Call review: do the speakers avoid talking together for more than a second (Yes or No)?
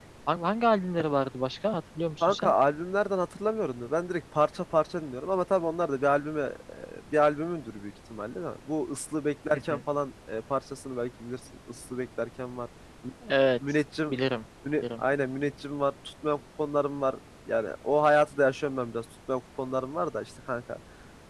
Yes